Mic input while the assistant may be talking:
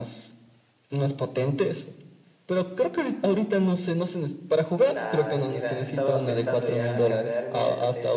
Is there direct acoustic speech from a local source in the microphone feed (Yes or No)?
Yes